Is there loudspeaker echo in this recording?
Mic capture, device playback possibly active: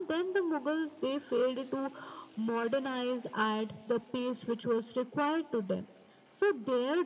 Yes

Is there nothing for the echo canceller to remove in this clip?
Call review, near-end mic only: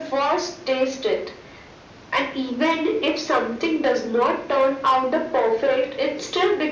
No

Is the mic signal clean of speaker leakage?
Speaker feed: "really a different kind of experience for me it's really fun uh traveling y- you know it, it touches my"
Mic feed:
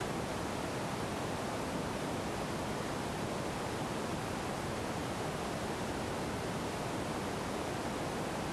Yes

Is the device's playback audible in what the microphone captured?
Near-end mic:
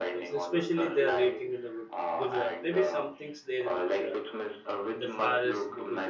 Yes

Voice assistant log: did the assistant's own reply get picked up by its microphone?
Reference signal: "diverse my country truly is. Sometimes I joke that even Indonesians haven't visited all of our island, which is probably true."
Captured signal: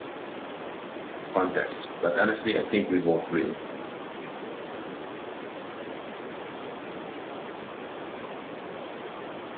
No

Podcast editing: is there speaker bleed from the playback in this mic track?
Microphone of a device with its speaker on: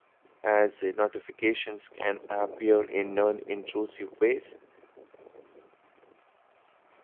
No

